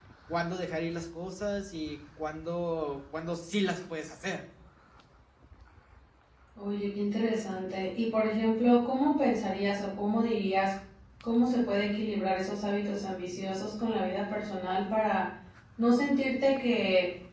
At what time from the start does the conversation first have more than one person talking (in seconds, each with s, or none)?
none